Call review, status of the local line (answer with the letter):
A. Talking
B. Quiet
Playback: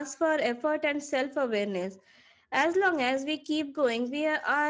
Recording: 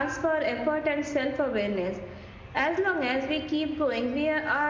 B